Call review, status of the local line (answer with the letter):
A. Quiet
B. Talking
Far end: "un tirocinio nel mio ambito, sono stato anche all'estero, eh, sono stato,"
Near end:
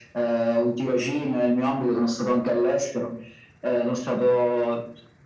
A